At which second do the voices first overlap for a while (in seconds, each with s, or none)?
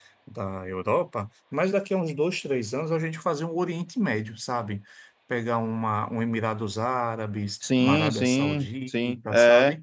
7.6 s